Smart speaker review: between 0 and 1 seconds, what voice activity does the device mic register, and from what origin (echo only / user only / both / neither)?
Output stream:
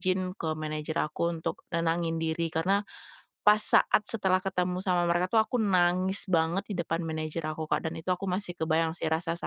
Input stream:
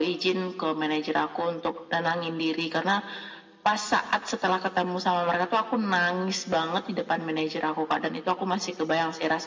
echo only